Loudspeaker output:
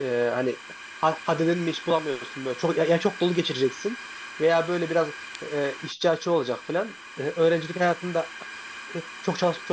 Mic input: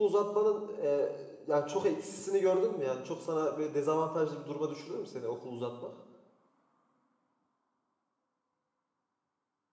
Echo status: none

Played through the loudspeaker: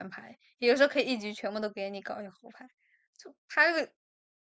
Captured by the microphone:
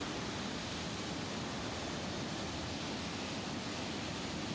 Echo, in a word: none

